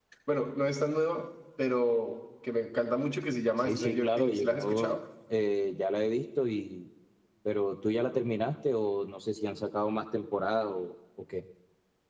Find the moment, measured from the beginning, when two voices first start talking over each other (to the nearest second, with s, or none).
4 s